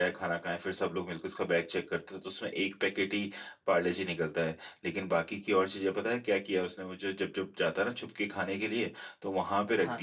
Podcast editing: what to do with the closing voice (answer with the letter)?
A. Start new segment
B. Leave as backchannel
B